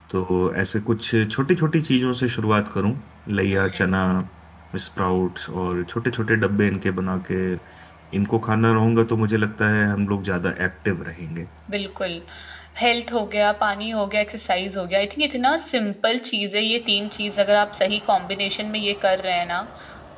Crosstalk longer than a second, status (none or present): none